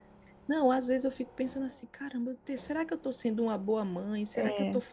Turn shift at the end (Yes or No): No